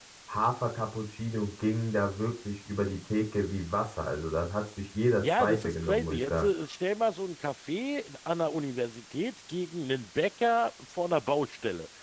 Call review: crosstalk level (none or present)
present